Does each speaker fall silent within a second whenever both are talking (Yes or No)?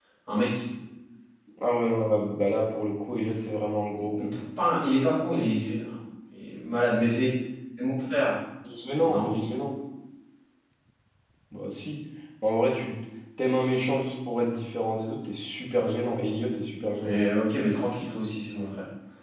Yes